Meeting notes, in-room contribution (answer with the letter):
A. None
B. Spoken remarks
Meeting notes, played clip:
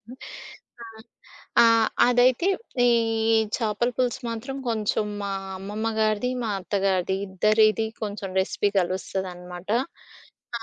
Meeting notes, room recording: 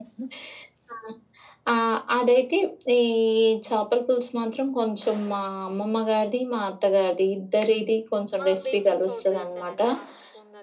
B